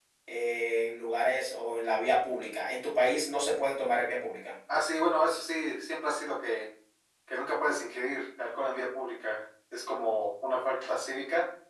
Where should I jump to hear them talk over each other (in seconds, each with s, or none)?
none